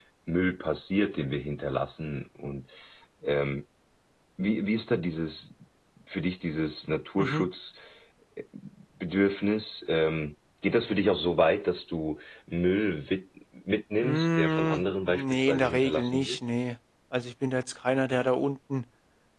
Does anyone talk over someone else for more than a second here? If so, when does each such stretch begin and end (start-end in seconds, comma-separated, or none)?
14.0-16.4